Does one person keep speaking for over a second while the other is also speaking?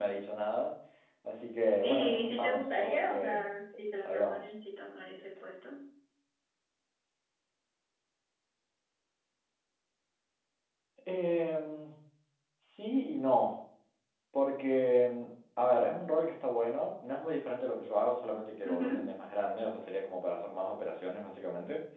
Yes, from 1.8 s

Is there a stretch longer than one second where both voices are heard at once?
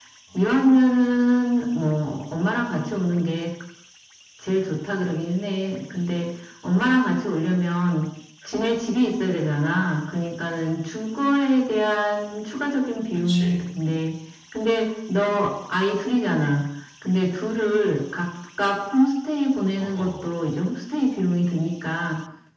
No

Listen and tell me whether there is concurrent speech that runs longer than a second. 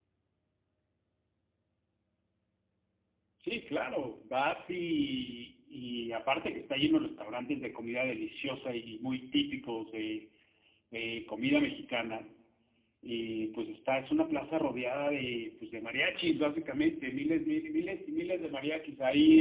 No

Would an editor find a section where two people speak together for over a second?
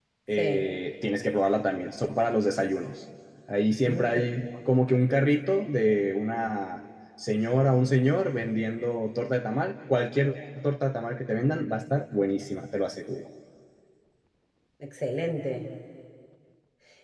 No

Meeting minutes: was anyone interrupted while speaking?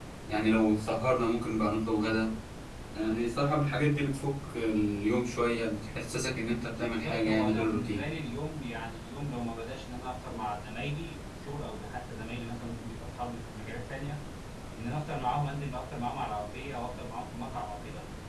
Yes, from 6.8 s

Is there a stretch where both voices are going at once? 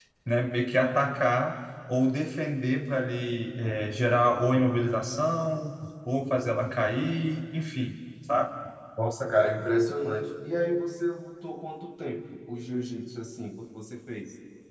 No

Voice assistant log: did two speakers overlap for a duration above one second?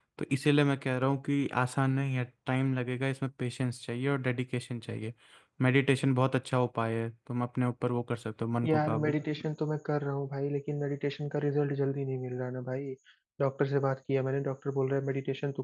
No

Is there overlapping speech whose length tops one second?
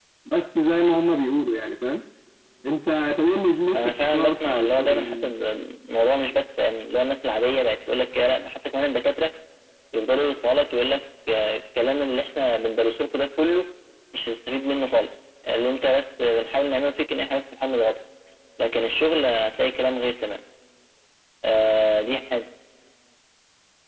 Yes, from 3.7 s

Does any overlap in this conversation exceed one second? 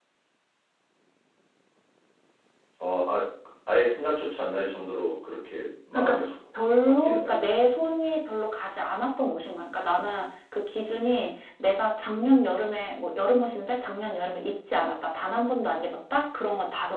No

